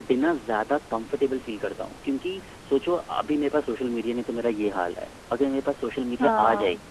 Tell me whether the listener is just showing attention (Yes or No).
Yes